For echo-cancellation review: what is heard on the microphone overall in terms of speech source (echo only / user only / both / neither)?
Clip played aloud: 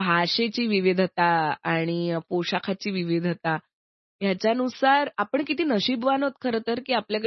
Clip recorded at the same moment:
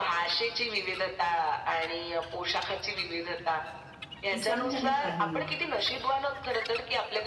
both